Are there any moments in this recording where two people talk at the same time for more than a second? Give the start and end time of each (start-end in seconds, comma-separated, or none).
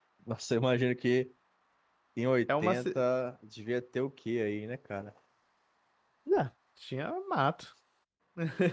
none